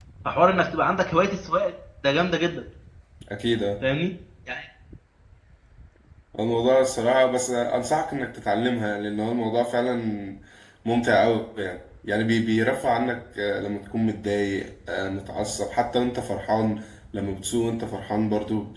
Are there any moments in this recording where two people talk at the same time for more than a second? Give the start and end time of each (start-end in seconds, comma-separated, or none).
none